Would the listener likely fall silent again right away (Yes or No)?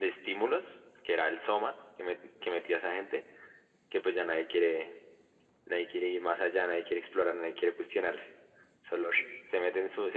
Yes